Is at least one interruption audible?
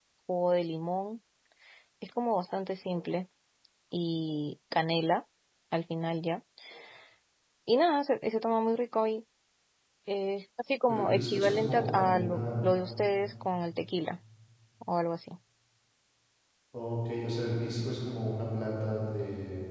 Yes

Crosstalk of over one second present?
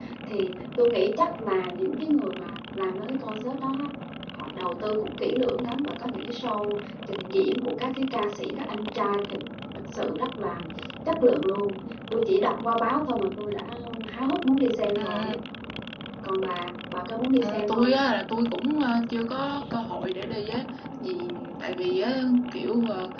No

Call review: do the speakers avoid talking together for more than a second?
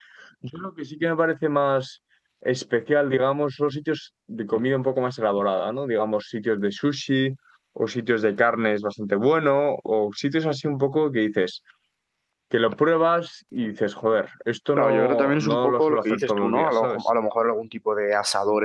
No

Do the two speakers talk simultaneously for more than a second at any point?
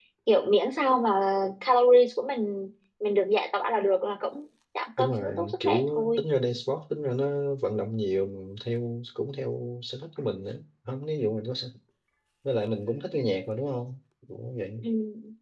Yes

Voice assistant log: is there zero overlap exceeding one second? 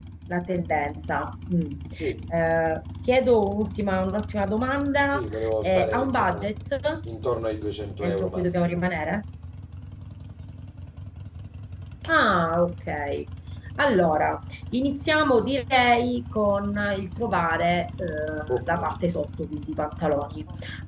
No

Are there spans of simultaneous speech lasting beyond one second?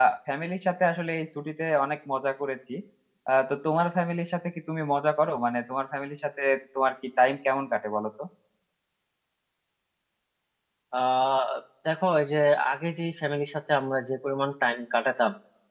No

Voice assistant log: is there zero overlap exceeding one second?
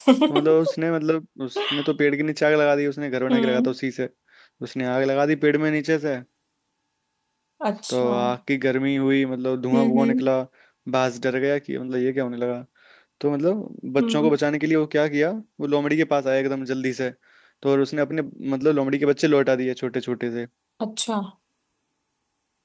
Yes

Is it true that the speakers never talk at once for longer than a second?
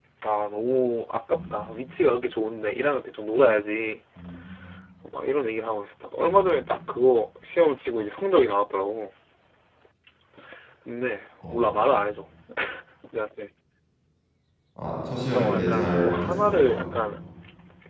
No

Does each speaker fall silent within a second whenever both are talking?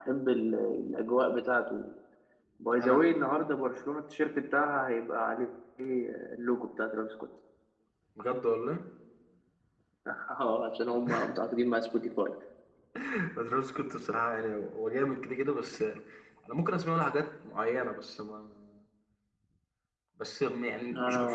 Yes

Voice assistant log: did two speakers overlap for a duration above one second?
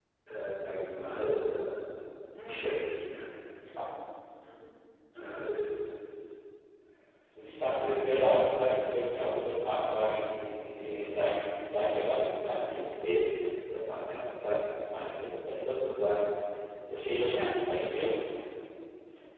No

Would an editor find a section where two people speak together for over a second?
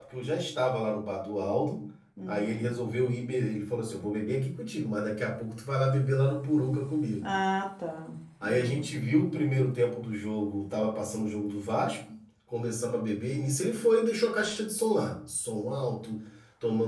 No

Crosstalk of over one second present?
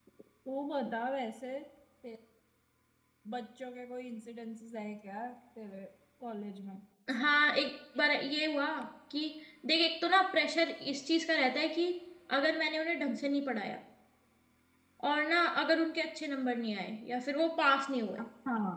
No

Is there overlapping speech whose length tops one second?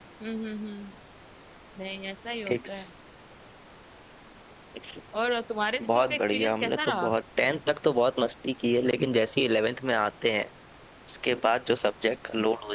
Yes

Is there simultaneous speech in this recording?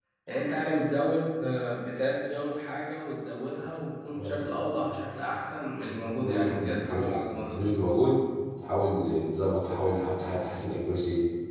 Yes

